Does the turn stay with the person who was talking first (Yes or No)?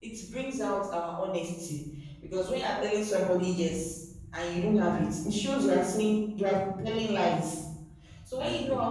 Yes